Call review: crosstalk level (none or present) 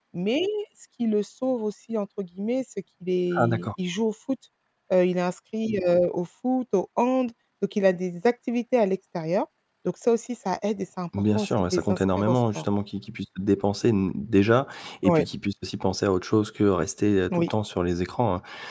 present